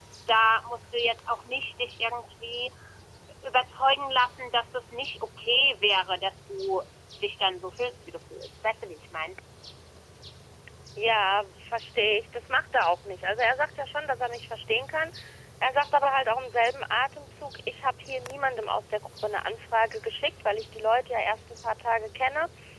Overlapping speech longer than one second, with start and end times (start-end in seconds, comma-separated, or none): none